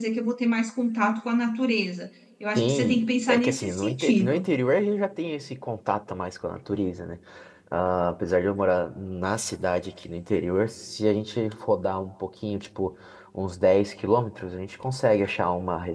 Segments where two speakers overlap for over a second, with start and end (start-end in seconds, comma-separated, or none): 2.6-4.5